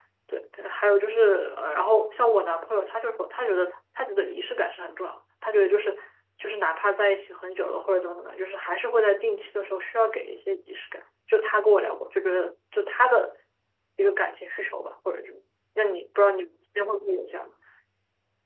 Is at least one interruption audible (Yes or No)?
No